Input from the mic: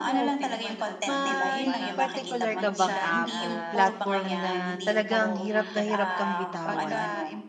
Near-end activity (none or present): present